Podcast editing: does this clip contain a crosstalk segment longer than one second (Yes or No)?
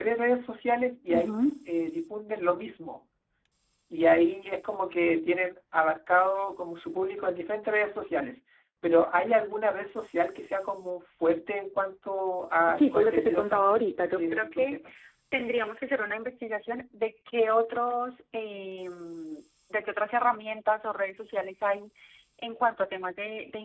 Yes